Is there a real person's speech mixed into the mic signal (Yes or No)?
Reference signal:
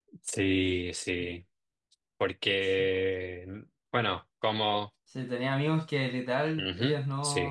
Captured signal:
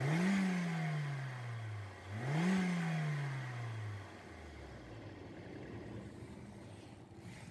No